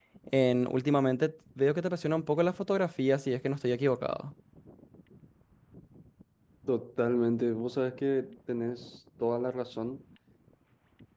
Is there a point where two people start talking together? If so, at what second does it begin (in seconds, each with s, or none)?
none